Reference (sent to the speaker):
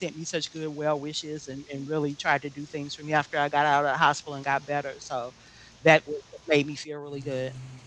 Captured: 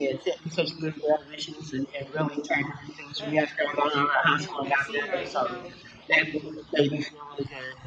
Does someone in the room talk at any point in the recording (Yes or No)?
Yes